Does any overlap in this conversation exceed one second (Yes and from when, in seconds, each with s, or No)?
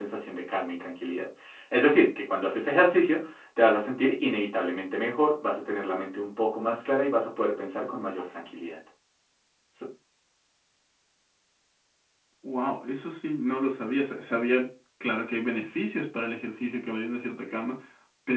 No